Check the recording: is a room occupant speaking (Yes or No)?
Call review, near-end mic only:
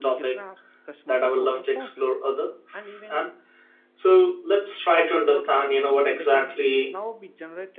Yes